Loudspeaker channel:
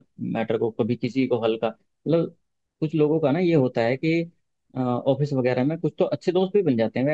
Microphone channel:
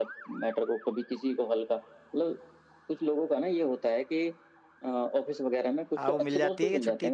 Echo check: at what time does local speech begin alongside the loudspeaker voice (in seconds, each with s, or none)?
6.0 s